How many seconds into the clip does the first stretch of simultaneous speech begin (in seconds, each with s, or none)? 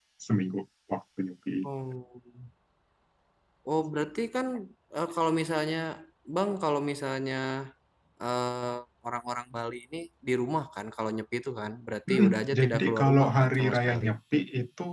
12.1 s